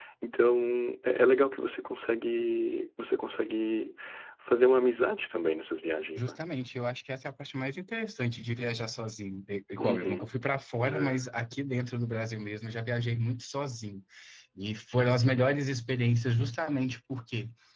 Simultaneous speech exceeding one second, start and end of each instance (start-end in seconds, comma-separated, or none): none